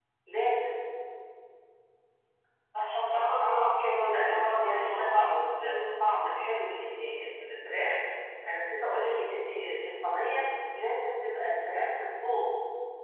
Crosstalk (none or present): present